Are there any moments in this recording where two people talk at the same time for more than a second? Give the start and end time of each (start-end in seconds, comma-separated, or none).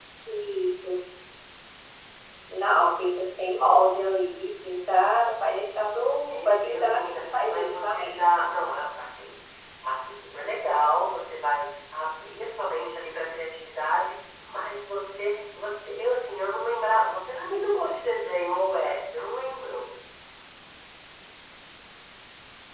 6.2-8.2